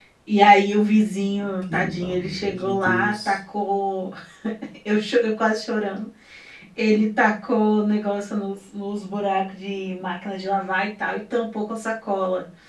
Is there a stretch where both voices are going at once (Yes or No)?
Yes